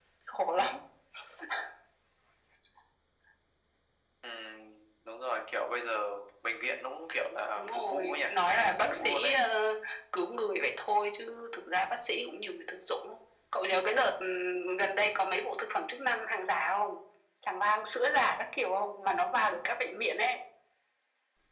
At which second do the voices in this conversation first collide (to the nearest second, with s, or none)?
8 s